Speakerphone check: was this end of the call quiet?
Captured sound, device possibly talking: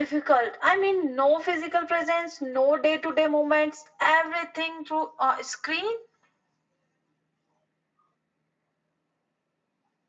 Yes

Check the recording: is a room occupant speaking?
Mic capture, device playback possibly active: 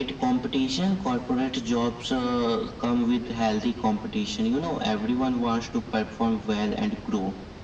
No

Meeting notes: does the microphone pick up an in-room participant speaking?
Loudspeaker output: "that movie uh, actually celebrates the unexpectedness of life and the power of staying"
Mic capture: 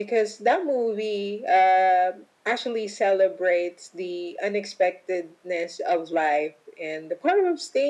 No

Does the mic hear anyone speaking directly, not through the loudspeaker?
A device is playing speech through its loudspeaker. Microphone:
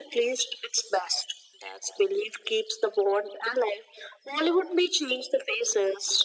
No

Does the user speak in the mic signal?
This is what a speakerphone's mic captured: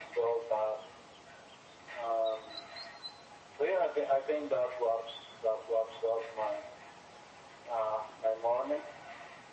No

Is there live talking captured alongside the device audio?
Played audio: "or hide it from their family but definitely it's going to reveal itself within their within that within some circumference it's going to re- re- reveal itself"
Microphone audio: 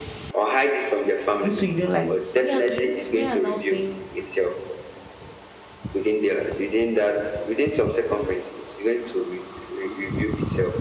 Yes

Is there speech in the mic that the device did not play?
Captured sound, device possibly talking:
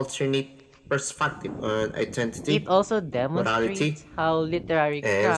Yes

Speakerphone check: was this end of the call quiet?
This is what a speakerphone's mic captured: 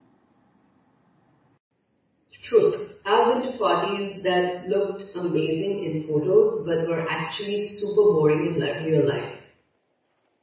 No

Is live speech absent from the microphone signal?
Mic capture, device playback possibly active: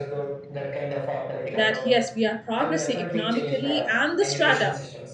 No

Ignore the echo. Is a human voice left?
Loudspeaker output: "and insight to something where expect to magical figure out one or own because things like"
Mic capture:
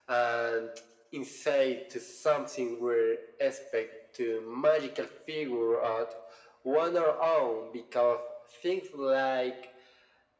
No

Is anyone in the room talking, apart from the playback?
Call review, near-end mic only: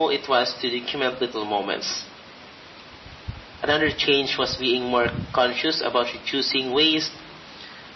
No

